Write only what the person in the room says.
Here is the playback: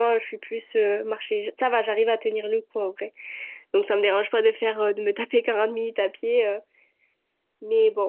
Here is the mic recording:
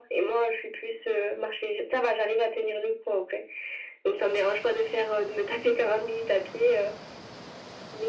none

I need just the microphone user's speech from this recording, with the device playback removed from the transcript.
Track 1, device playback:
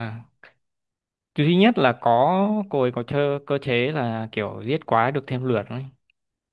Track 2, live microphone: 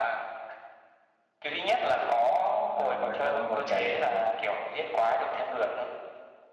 à, vậy là ông vào trễ

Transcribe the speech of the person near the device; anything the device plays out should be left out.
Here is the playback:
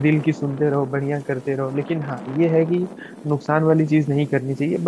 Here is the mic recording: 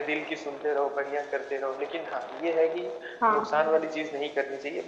हाँ

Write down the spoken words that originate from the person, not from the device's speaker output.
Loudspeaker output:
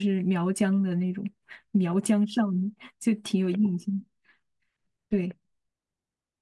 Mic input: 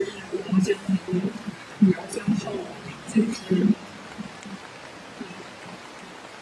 none

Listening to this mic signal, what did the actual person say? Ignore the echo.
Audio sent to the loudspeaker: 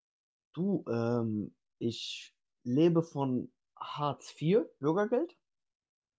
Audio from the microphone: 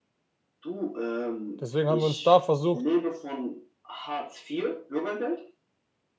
Deswegen haben wir uns da versucht,

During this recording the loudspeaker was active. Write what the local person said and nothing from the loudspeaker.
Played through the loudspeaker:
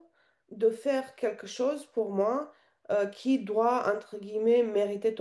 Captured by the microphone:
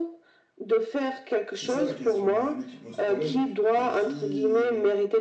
C'est ça la question, à mon avis, qui pose problème et qui,

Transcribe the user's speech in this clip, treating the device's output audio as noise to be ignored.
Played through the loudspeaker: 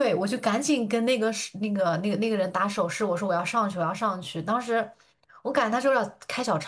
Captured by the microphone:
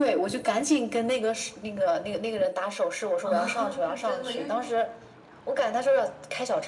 啊，是真的，因为

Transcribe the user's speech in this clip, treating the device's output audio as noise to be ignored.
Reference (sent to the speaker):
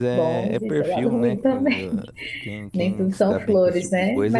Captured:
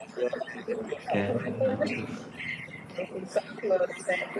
É, ela, é profess-

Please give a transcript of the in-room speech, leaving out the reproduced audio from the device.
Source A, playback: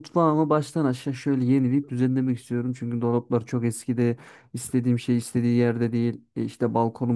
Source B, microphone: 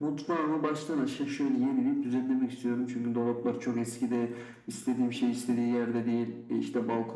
Hı hı.

